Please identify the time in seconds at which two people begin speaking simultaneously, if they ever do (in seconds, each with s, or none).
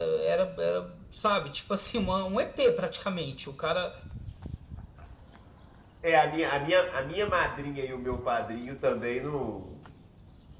none